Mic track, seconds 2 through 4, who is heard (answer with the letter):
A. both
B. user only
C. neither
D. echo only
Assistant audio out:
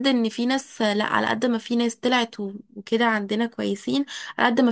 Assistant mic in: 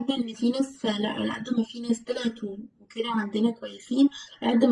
D